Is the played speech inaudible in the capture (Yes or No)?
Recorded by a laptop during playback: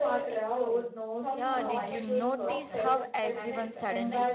No